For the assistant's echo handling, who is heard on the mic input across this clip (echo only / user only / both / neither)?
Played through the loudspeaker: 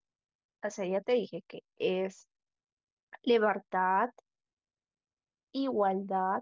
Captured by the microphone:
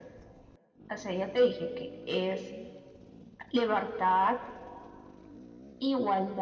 echo only